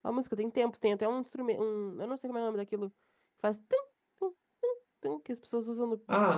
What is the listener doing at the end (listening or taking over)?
taking over